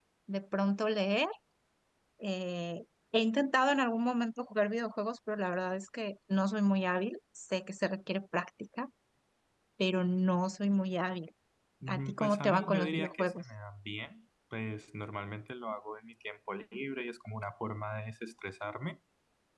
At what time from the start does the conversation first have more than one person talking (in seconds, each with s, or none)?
11.9 s